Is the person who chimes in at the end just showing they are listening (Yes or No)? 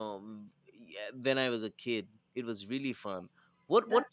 No